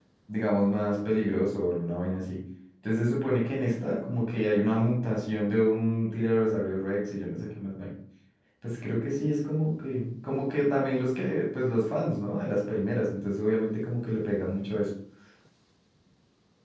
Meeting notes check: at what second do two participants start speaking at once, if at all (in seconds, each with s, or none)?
none